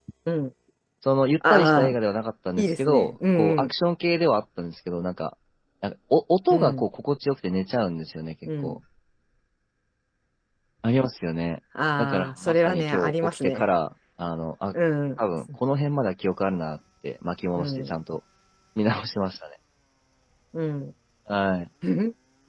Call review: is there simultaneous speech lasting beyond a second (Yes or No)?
Yes